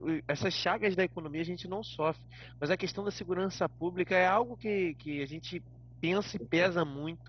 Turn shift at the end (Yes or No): No